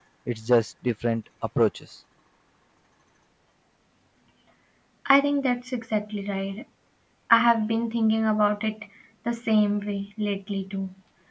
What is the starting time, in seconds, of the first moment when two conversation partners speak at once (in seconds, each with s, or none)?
none